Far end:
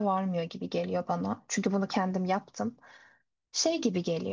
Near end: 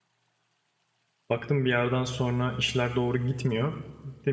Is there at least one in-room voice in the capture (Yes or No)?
Yes